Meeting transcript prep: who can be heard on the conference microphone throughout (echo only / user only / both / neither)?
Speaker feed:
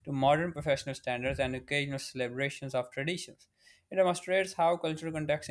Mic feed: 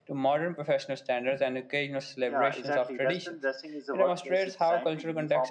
both